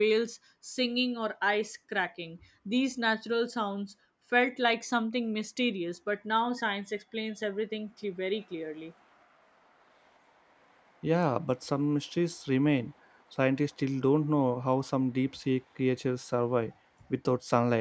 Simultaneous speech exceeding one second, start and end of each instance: none

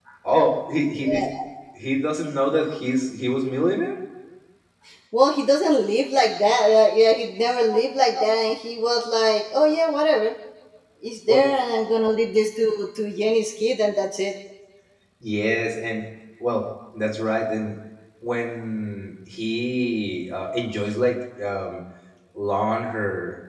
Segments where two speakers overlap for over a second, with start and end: none

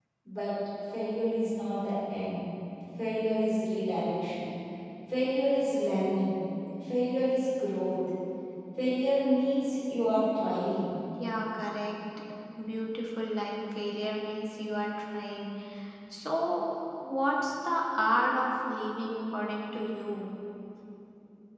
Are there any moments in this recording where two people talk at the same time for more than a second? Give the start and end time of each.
none

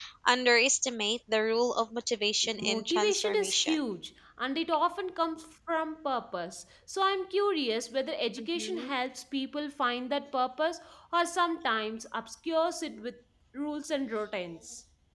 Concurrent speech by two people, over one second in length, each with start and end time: 2.6-3.8

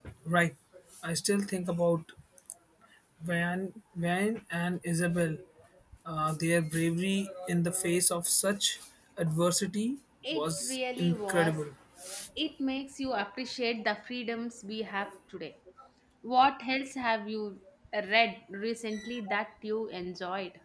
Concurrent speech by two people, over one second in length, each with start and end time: 10.3-11.6

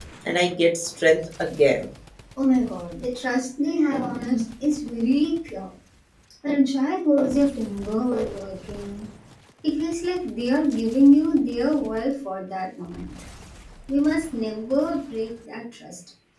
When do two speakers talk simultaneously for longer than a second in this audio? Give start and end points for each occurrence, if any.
none

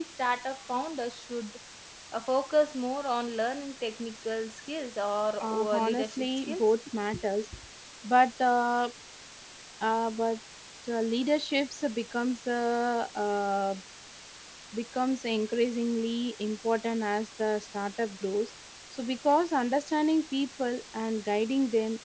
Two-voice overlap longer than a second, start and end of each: 5.4-6.7

